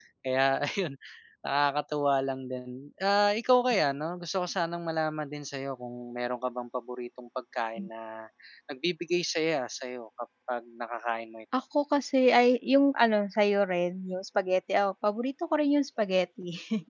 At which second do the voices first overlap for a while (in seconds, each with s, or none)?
none